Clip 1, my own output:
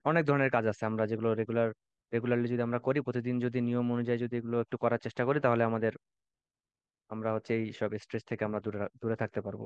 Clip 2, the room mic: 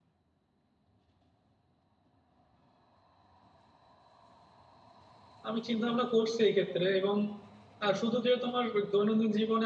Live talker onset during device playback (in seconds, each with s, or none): 5.5 s